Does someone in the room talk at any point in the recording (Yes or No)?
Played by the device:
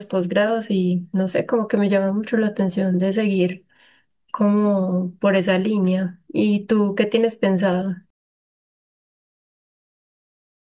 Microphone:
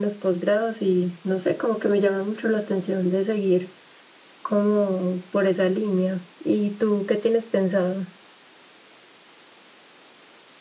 No